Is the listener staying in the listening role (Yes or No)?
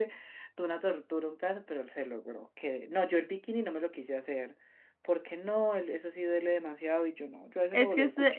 No